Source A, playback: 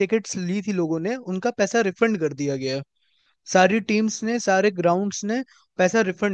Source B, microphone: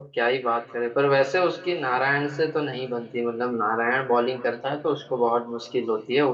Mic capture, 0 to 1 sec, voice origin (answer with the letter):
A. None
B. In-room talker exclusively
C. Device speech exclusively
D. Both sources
B